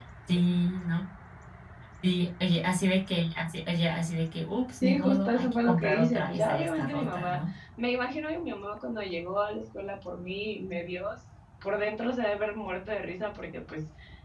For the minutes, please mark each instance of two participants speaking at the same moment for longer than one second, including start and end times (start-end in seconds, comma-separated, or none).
4.8-7.4